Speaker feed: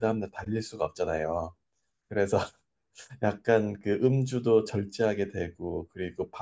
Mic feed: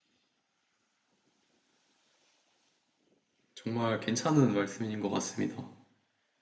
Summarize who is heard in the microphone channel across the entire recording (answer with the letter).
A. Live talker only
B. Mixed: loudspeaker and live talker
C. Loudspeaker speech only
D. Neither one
A